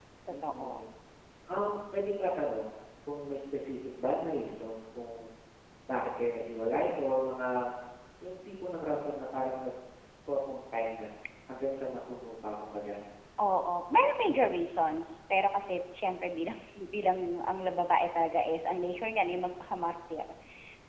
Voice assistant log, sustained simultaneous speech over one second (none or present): none